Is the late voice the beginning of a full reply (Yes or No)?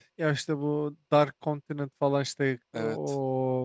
No